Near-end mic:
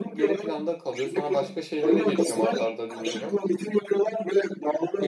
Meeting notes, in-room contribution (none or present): present